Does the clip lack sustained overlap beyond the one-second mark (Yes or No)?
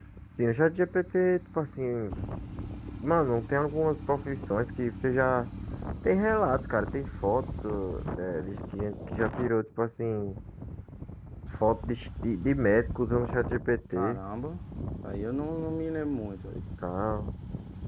Yes